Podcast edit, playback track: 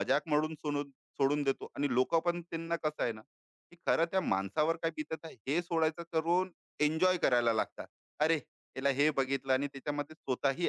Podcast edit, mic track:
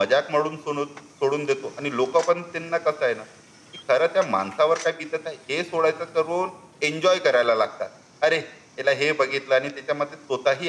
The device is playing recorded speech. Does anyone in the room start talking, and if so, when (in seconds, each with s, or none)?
none